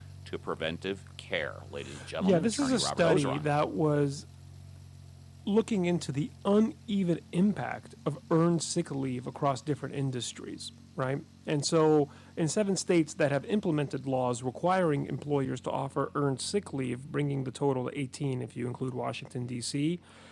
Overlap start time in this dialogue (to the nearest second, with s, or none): 2 s